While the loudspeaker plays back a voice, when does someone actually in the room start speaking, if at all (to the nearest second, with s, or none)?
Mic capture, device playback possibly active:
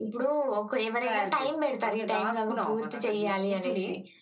none